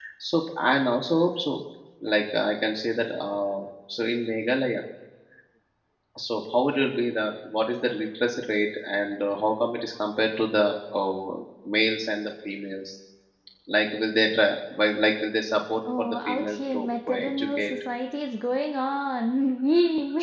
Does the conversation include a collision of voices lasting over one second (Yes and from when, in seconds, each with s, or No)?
Yes, from 15.8 s